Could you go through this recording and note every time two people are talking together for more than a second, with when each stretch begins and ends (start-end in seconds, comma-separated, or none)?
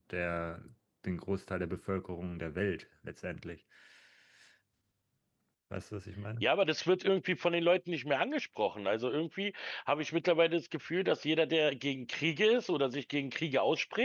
none